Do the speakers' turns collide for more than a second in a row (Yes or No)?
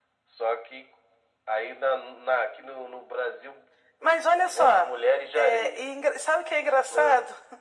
No